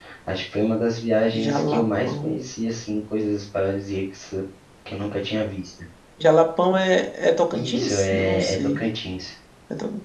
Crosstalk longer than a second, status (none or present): present